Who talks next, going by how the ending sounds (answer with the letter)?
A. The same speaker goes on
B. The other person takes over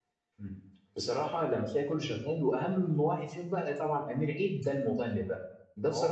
A